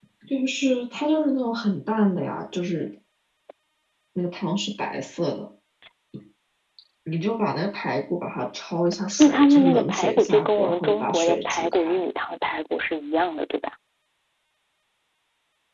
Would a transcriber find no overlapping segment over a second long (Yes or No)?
No